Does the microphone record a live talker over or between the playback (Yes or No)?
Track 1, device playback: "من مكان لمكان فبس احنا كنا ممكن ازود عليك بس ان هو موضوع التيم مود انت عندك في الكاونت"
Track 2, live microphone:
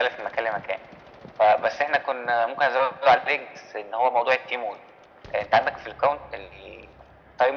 No